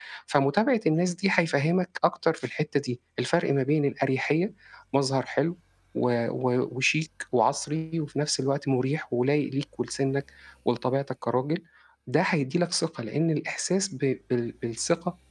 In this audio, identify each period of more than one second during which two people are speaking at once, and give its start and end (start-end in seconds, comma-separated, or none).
none